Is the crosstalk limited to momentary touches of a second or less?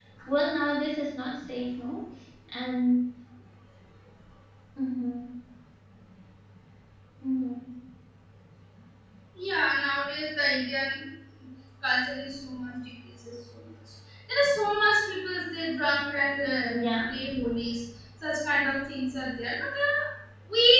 Yes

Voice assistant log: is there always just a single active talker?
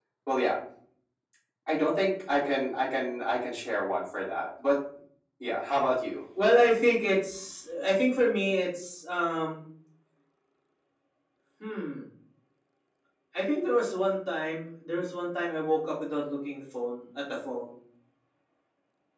Yes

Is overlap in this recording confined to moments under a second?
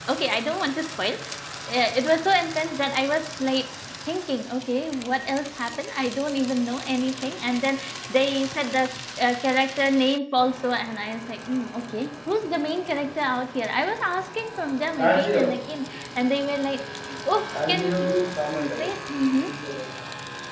No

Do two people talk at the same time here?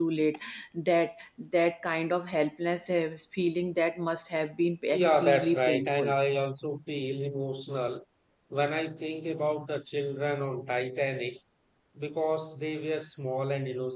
Yes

